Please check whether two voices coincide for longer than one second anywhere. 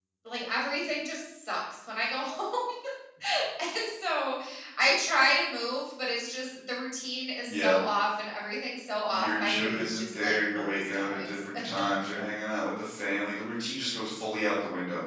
Yes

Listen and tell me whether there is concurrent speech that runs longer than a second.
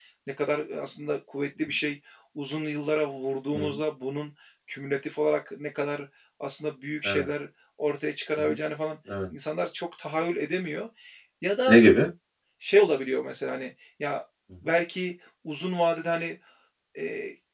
No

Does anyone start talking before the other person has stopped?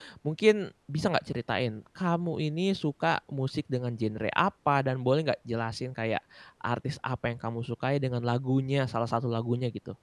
No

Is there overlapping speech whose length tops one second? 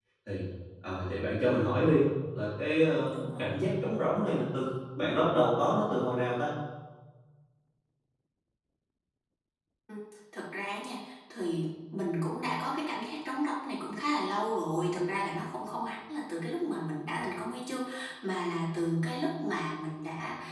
No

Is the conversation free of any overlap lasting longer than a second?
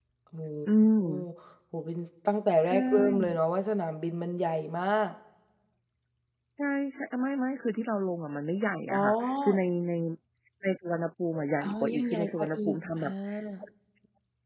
No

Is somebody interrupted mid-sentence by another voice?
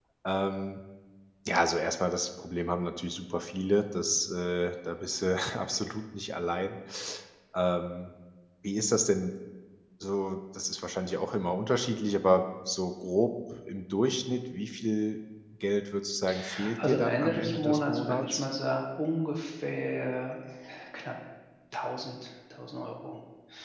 Yes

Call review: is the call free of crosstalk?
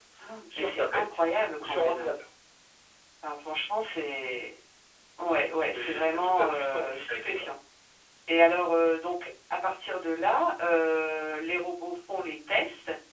No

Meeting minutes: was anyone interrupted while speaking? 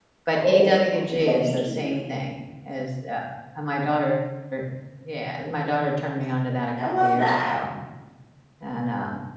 Yes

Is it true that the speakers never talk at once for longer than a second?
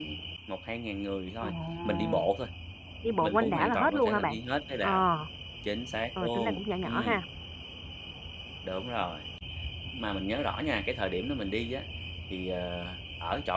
No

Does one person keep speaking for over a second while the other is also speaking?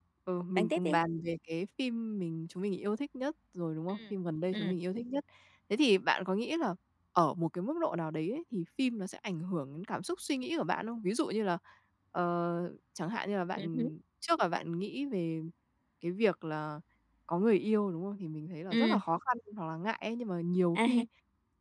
No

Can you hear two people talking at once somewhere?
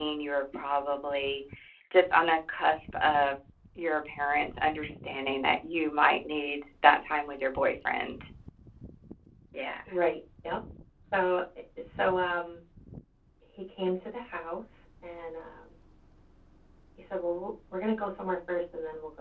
No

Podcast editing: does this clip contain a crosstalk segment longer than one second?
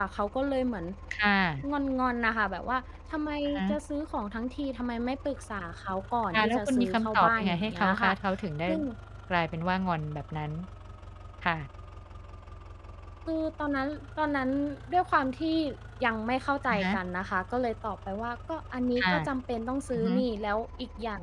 Yes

